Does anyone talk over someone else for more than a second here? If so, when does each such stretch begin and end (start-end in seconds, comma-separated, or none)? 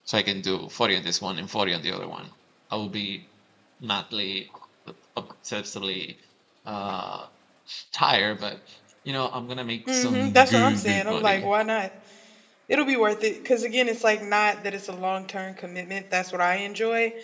9.9-11.5